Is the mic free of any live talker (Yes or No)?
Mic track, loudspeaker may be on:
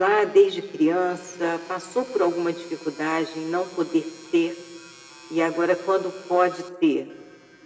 Yes